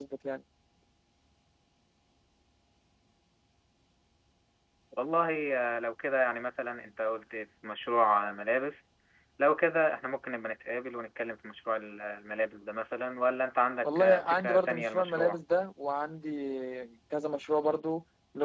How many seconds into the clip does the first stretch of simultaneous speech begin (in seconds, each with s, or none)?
13.8 s